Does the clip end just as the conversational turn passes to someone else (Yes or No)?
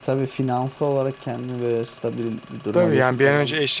Yes